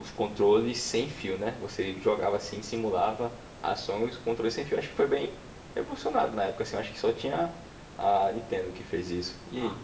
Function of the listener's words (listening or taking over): taking over